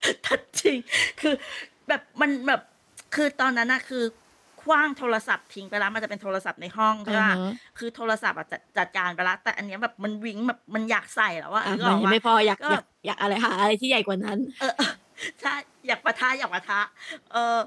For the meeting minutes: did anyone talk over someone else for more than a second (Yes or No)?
No